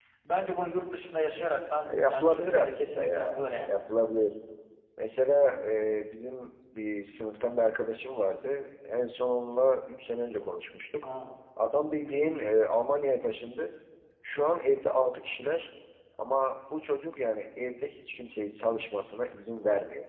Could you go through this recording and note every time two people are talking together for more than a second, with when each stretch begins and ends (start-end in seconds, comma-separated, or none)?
1.8-3.8